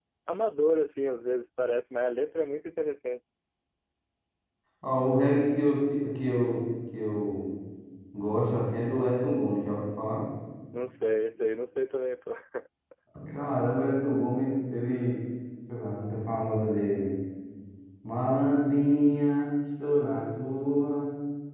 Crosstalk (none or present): none